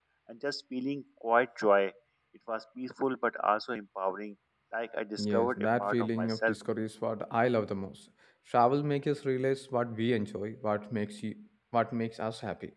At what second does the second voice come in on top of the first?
5 s

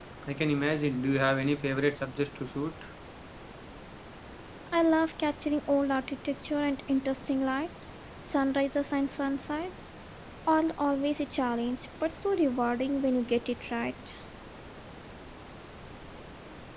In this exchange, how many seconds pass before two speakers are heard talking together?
none

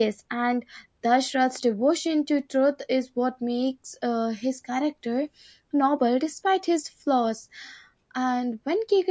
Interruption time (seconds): none

